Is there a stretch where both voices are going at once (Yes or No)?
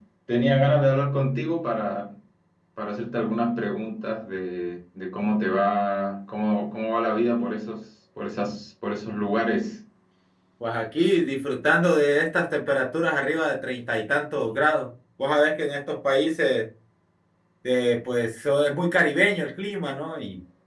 No